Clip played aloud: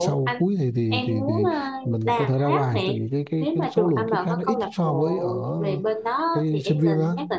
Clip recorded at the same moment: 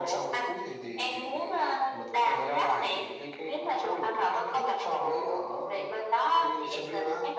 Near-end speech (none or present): none